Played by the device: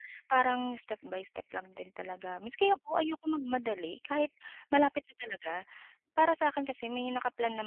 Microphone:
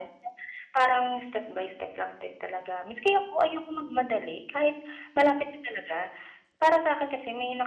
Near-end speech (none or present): none